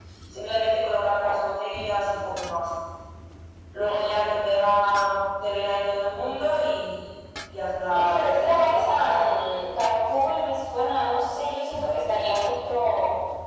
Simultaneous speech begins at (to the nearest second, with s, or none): 8 s